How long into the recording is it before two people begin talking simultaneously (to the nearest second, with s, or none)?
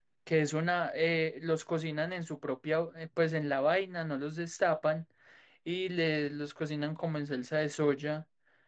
none